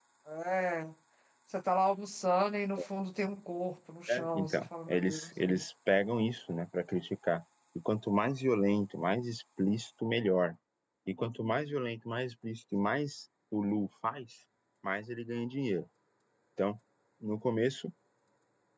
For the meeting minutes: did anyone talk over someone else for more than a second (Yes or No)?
Yes